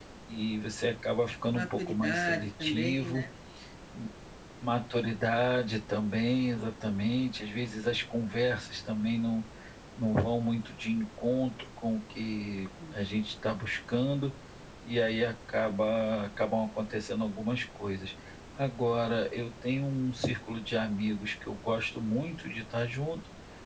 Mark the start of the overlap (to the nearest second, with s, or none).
2 s